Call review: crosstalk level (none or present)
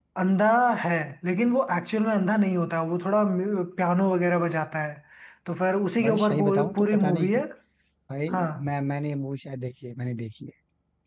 present